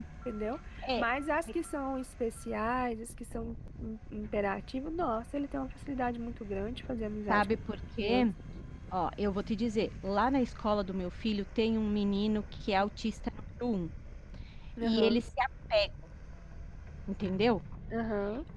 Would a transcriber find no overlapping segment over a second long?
Yes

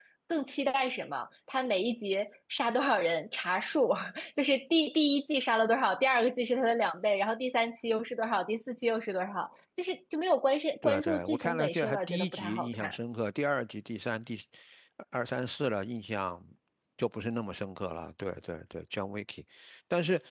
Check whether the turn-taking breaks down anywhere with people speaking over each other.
Yes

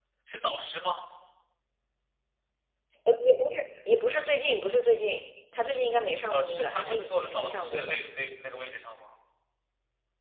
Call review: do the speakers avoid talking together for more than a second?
No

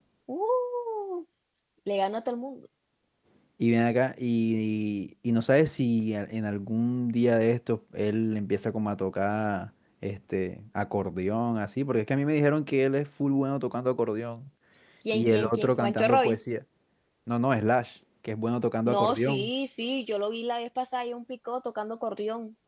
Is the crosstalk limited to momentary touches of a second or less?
No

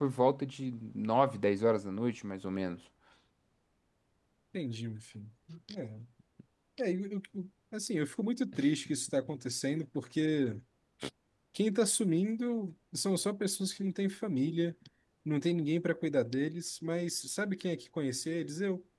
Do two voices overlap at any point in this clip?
No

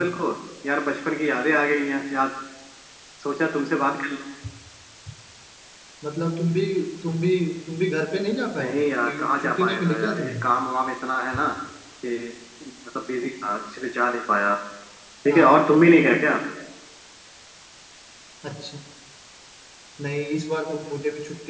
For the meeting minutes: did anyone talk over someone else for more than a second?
Yes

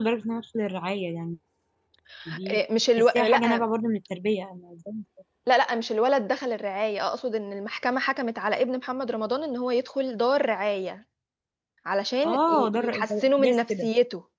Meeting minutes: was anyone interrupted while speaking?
Yes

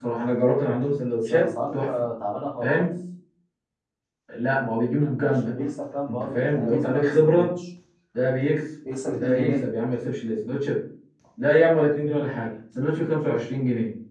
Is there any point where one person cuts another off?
Yes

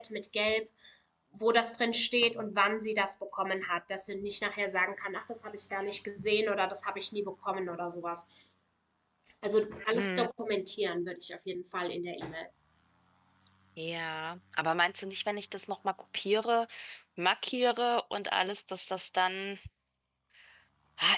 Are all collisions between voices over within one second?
Yes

